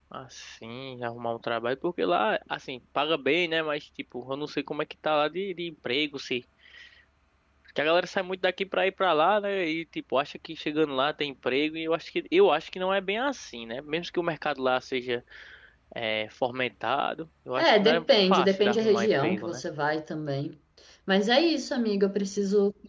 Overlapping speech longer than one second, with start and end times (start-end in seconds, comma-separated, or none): 17.6-19.6